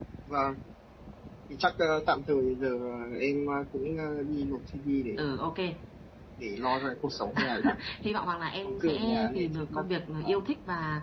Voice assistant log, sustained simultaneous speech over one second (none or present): present